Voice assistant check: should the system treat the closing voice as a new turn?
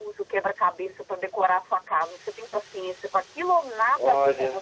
Yes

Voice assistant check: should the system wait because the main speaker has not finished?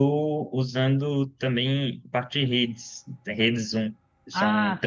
No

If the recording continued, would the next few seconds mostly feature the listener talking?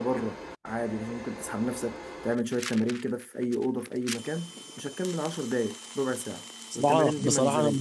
Yes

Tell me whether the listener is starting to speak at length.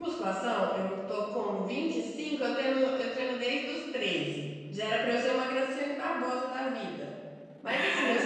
No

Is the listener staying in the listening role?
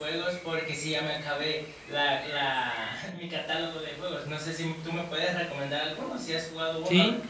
No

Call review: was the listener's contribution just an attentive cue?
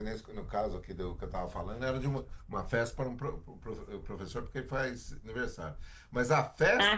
Yes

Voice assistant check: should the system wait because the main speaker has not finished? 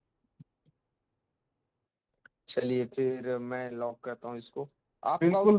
Yes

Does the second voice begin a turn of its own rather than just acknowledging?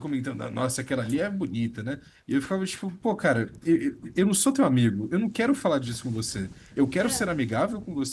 No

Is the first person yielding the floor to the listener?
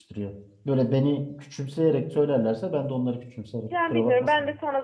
Yes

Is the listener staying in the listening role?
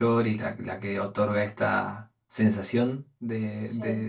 Yes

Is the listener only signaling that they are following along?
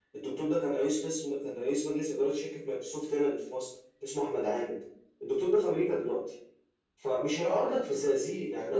Yes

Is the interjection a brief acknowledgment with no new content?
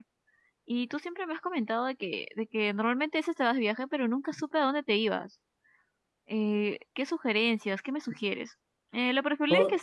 Yes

